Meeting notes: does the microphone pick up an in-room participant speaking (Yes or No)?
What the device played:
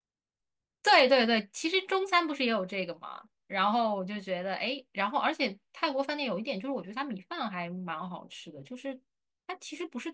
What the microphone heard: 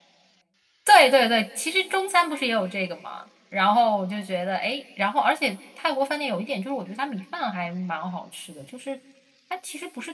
No